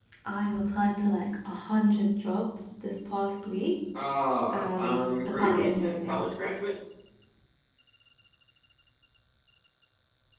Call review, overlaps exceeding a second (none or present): present